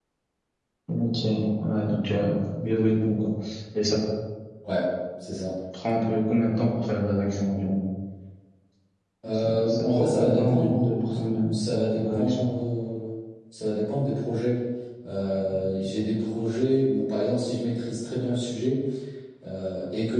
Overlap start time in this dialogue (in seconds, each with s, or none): 9.3 s